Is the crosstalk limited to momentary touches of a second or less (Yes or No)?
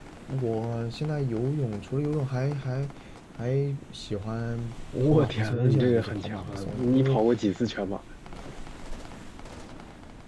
No